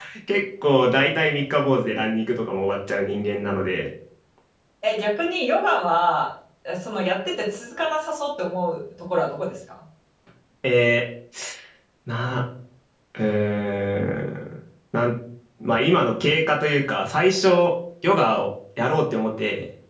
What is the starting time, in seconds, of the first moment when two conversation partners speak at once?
none

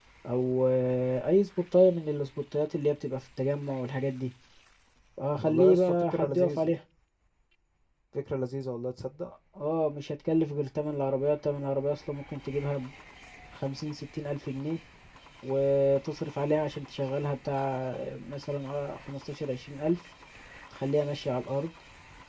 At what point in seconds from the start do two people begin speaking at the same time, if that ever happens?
5.4 s

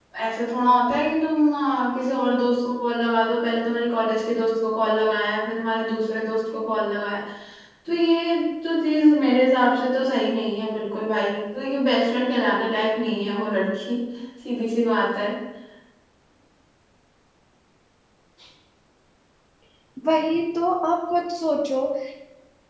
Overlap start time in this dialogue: none

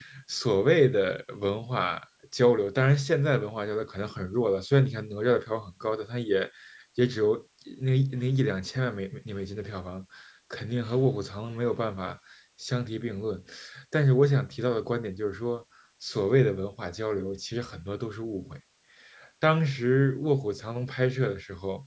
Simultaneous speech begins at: none

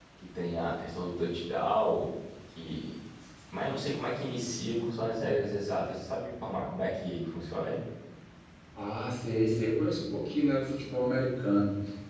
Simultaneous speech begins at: none

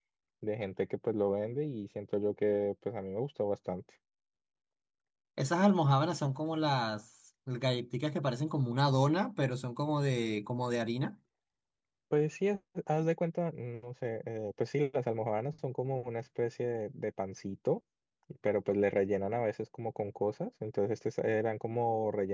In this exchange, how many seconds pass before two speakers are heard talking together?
none

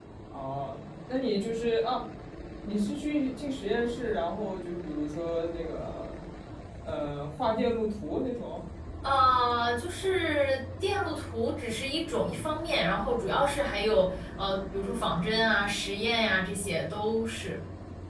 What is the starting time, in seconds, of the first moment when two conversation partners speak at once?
none

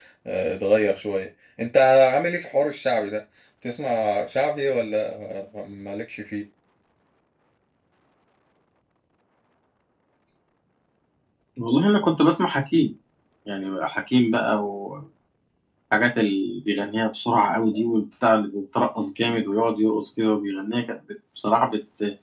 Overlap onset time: none

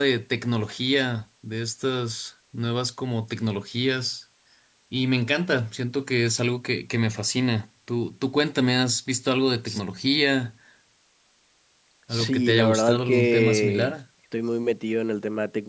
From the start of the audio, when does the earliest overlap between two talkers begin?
12.1 s

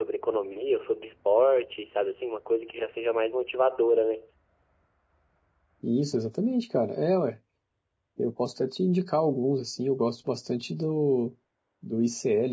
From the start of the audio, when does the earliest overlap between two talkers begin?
none

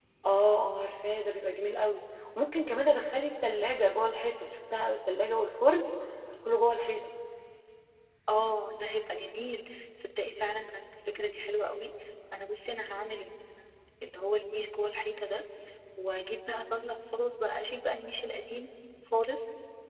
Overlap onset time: none

